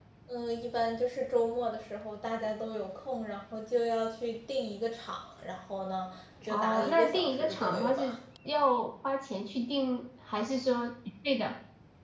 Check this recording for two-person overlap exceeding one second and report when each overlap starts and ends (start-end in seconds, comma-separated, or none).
6.5-8.2